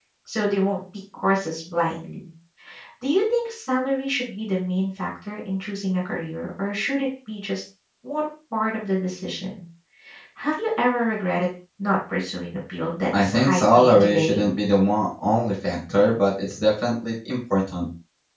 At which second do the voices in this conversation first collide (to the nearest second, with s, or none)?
13 s